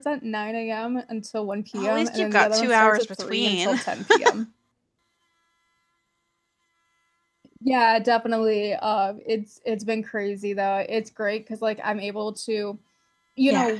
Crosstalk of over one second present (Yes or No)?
Yes